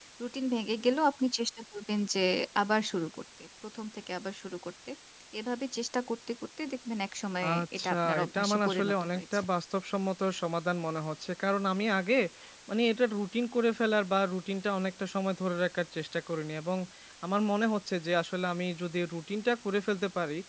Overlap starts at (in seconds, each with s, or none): 7.4 s